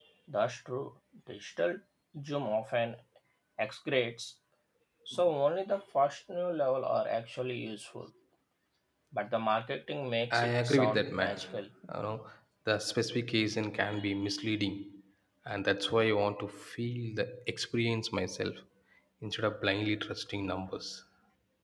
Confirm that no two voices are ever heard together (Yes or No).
No